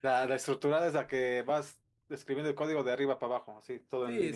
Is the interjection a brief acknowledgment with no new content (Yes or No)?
No